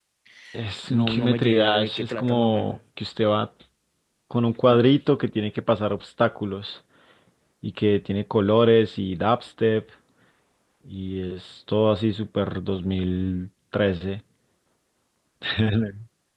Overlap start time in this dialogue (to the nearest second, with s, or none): 1 s